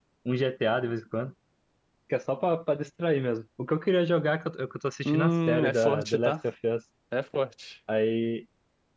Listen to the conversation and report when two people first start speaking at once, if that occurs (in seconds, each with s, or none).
5.0 s